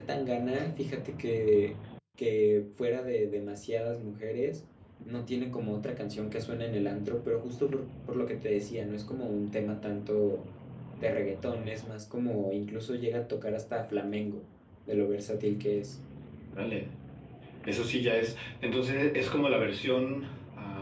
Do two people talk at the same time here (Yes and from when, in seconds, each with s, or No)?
No